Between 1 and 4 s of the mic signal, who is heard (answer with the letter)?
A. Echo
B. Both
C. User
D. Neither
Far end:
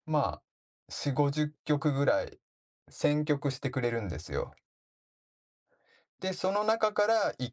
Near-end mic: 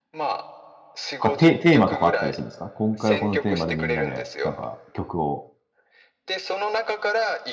B